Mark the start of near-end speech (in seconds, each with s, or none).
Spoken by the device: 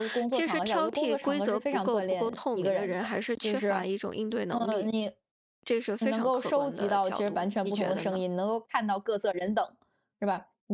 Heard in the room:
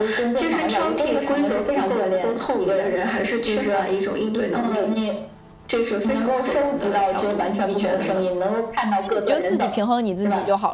9.0 s